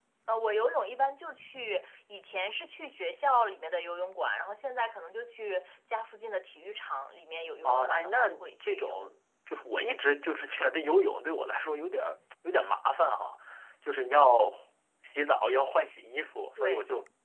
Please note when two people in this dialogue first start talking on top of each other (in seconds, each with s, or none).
7.6 s